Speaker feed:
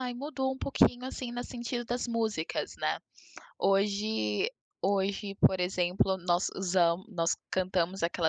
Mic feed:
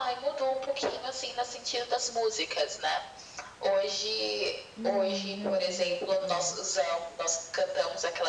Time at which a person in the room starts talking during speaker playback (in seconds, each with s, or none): 4.8 s